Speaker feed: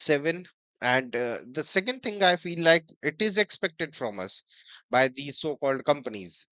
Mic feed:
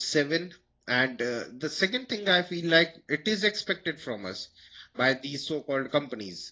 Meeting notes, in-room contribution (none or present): none